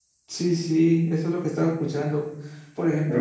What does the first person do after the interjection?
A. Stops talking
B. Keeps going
B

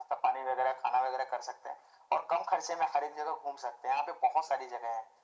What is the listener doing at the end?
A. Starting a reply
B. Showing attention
B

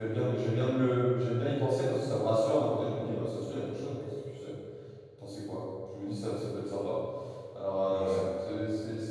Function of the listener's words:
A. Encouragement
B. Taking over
A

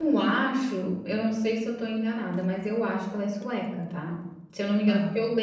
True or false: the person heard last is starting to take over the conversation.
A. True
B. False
B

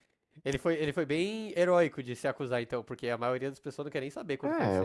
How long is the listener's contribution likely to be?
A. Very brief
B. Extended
B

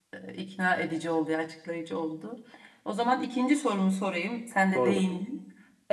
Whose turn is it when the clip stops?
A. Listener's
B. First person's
B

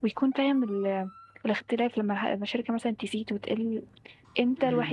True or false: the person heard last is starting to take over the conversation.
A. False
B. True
B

